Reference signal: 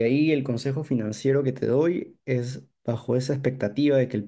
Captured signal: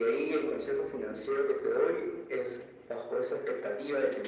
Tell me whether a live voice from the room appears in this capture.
No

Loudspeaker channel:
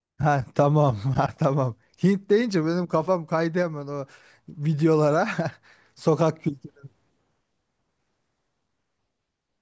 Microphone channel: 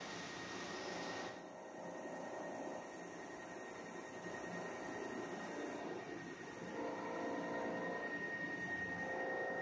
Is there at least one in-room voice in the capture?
No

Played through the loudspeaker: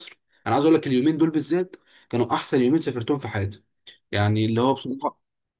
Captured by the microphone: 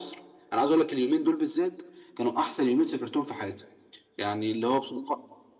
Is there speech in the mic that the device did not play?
No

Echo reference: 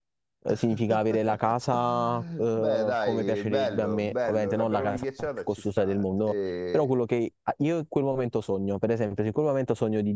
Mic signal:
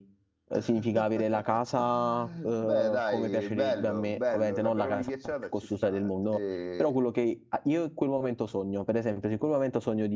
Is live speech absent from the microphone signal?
Yes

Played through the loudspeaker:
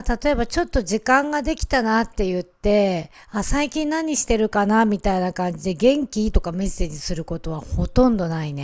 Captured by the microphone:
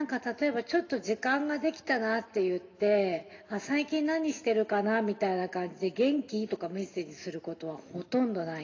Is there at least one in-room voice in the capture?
No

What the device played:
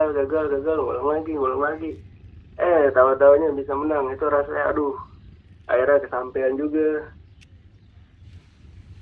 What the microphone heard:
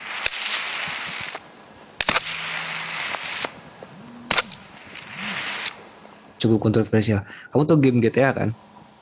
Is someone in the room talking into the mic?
Yes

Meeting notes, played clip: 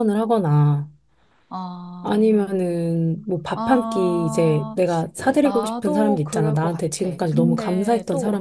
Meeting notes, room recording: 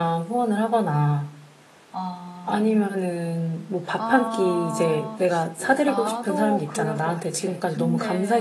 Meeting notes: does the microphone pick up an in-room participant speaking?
No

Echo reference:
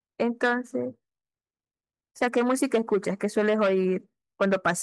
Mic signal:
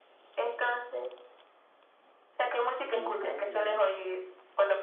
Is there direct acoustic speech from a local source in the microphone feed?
Yes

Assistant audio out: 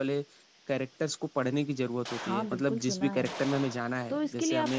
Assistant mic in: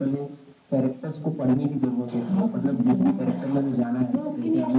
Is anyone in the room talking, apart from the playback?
No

